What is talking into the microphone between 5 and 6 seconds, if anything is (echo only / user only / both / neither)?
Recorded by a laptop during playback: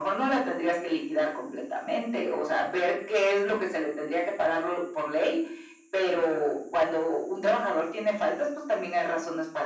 echo only